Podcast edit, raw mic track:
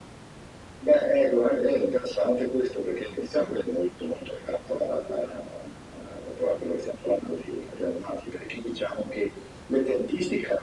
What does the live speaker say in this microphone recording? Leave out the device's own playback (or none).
none